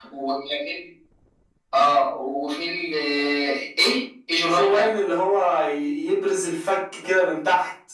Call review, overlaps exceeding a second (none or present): none